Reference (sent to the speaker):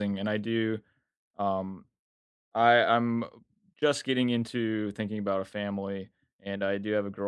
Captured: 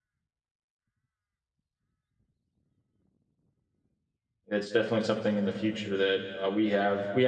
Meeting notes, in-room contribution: present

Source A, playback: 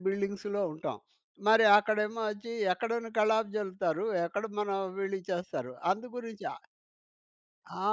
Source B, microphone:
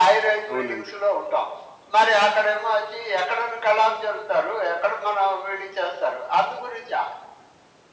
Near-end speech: present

